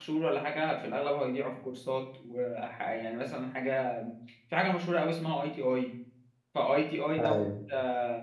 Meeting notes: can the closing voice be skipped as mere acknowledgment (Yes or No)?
Yes